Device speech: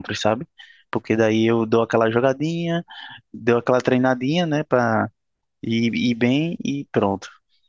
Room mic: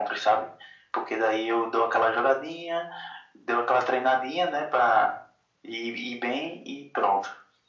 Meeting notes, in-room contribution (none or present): none